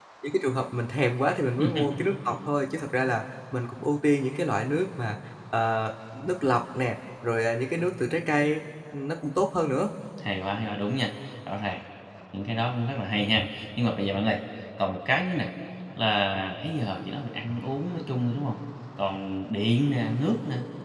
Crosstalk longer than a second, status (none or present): none